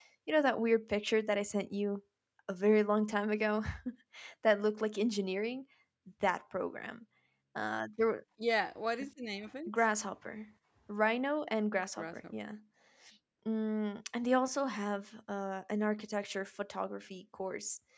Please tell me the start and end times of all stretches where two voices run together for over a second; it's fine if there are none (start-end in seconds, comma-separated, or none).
none